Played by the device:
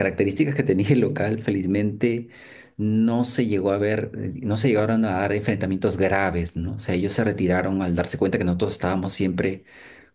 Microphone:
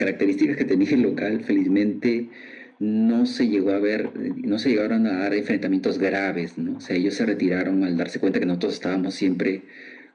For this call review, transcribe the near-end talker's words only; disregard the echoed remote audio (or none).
none